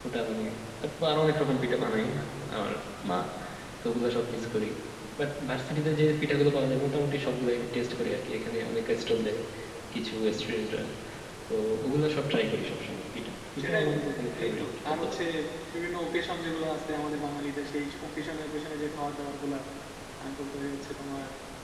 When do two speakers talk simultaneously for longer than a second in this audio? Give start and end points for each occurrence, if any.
13.6-15.2

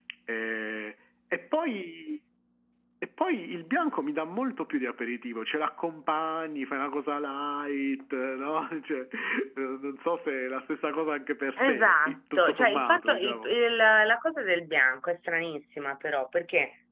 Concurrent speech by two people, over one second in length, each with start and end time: 11.7-13.5

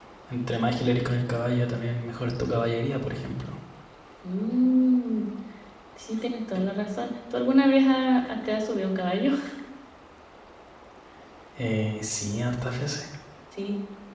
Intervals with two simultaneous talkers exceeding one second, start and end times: none

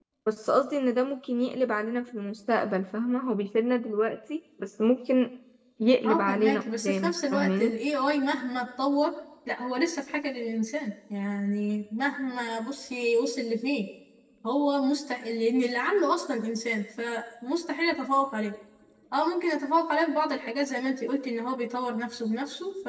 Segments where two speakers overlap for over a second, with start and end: 6.1-7.7

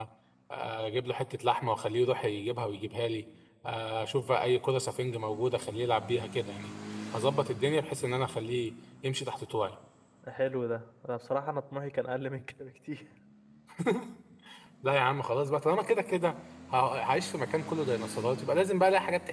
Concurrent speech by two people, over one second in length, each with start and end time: none

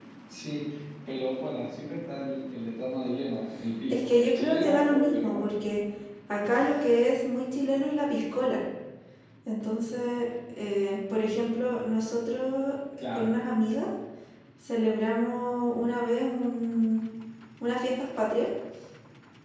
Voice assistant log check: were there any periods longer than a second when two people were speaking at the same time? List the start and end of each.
3.9-5.4

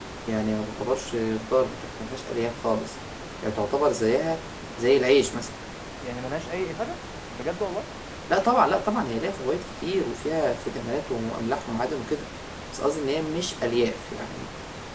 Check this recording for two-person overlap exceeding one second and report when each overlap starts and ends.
none

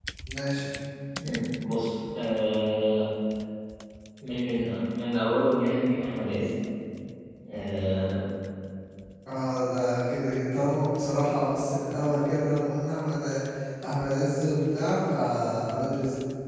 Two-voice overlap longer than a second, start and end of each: none

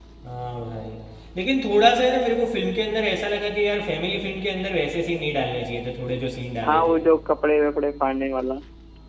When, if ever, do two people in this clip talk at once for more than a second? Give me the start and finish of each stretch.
none

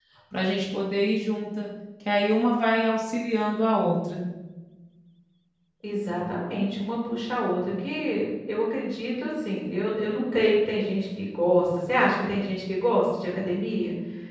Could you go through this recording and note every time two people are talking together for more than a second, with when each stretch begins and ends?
none

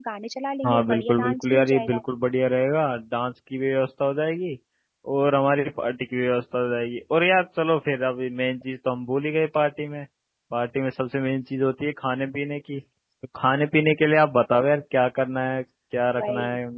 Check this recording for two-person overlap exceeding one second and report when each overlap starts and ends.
0.6-2.0

